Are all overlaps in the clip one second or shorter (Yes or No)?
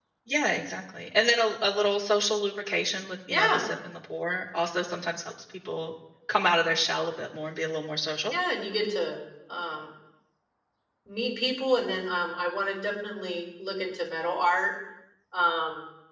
Yes